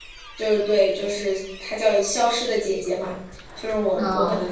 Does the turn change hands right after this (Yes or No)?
No